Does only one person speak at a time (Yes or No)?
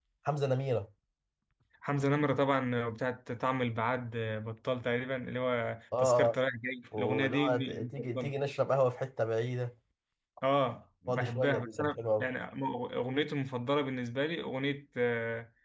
No